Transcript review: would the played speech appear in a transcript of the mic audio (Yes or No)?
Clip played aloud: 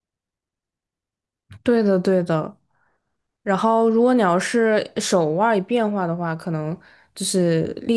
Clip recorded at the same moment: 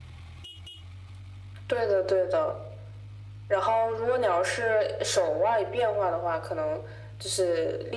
Yes